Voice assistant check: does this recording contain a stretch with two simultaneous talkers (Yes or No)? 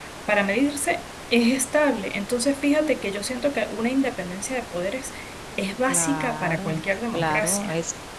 Yes